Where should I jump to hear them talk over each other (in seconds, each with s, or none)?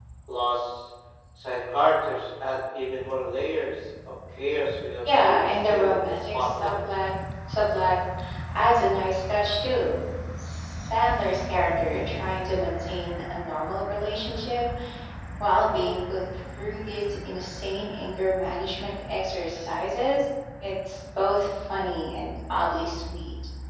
5.0 s